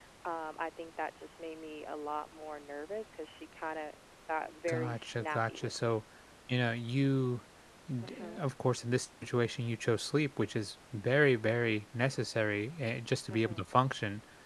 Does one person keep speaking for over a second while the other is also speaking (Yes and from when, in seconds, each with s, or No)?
Yes, from 4.7 s